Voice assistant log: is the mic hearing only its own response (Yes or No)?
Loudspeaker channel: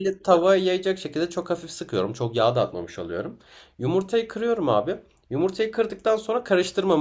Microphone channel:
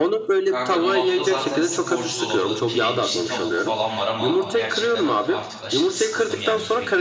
No